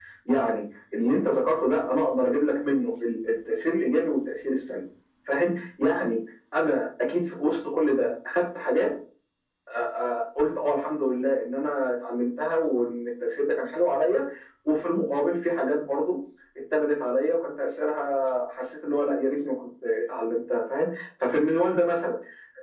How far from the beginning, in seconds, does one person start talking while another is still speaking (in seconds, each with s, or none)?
none